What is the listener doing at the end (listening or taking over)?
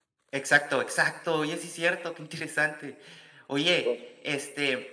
listening